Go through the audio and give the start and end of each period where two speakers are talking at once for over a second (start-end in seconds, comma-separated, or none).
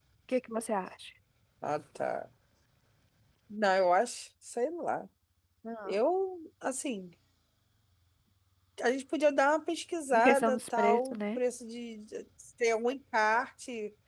10.1-11.4